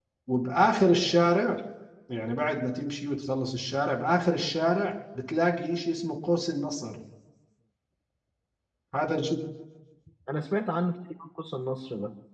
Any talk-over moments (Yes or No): No